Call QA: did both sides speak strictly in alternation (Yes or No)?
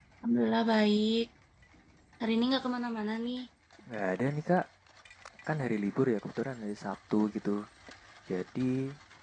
Yes